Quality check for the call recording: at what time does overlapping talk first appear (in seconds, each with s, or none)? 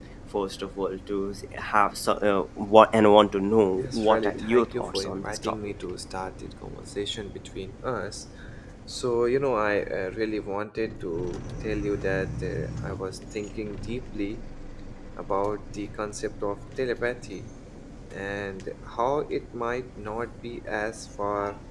3.8 s